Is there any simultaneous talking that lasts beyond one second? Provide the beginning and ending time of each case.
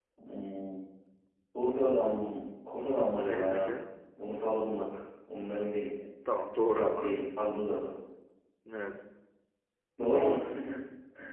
none

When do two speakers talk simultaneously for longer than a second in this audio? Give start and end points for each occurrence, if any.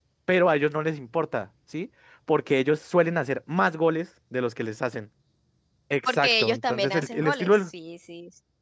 6.0-7.7

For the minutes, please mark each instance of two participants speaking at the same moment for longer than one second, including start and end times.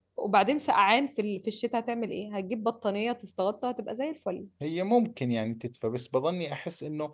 none

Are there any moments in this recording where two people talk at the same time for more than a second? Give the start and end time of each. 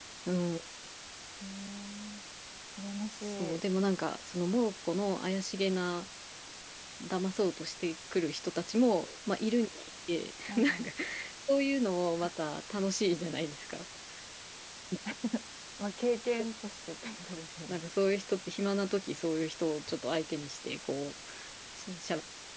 none

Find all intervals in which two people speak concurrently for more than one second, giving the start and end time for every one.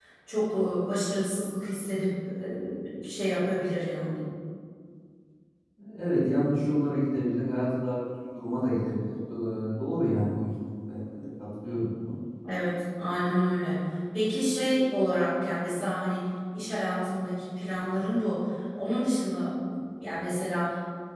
none

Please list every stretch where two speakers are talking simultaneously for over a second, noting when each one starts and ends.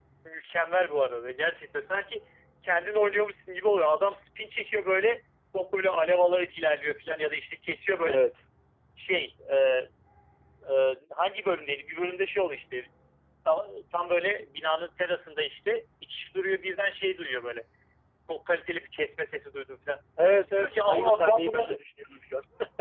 20.5-21.8

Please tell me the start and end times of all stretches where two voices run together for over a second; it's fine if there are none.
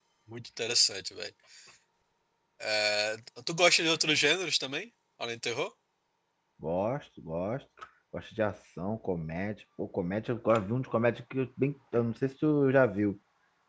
none

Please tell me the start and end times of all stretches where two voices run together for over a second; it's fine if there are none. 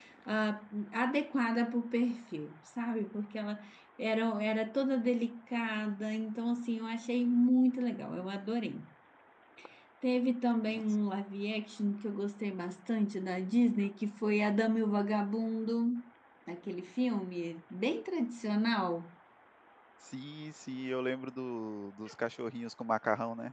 none

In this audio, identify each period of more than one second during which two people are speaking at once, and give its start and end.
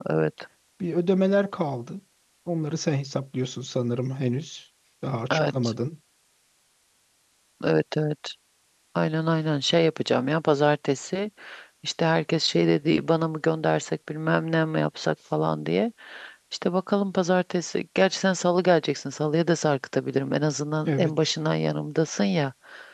none

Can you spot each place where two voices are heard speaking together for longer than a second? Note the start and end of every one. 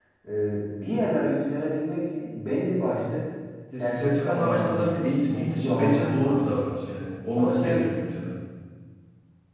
3.8-6.8

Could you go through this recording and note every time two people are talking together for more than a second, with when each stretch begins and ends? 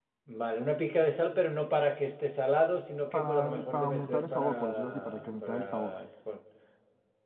3.1-5.9

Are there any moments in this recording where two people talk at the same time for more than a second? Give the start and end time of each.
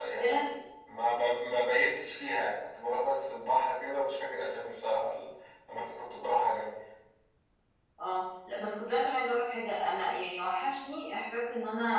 none

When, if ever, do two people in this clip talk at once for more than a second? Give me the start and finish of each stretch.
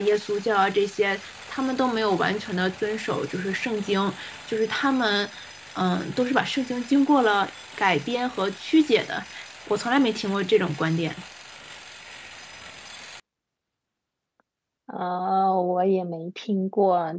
none

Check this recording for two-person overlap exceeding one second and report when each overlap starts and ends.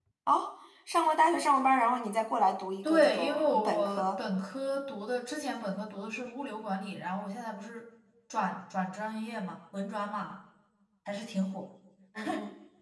2.8-4.1

